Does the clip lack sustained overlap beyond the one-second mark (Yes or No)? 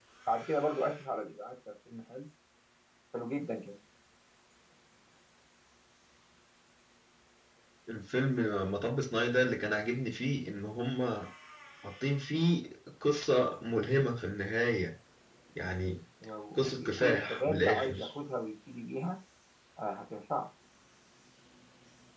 No